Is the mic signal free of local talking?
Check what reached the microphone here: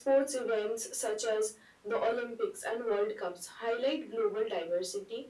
Yes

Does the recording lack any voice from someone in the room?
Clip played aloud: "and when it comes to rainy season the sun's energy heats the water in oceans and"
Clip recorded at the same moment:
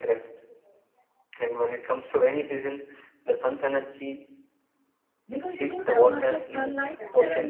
No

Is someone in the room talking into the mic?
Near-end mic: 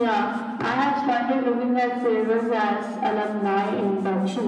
No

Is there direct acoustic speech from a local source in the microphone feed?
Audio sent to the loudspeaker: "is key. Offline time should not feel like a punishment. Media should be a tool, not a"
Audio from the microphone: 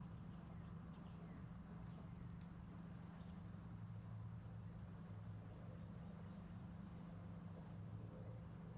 No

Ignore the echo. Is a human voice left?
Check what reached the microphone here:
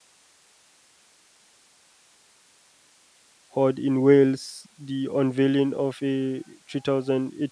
Yes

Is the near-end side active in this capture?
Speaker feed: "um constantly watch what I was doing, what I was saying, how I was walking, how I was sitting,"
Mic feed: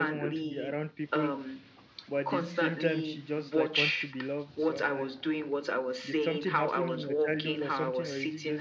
Yes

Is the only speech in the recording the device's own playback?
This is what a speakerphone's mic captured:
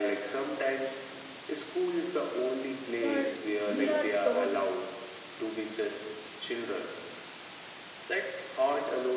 No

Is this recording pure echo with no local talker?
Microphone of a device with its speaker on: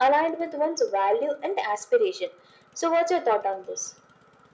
Yes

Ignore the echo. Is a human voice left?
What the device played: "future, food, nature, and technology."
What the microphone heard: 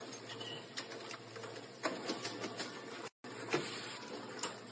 No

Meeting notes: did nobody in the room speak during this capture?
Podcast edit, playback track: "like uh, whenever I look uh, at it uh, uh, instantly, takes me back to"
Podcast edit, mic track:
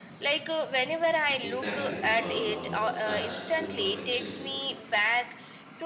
No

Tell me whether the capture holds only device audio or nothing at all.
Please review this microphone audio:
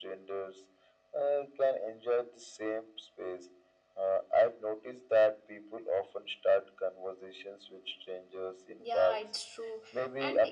No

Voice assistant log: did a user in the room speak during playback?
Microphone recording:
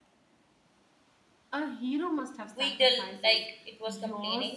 Yes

